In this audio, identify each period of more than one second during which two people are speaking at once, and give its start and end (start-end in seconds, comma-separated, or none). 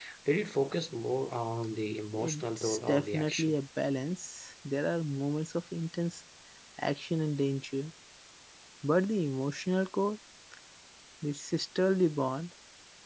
2.1-3.5